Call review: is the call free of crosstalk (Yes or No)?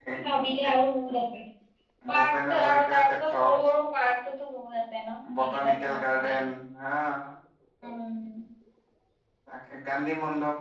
No